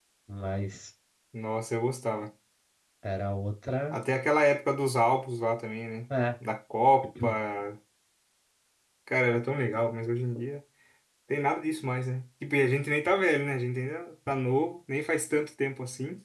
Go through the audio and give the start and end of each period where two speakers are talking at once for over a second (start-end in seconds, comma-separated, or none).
none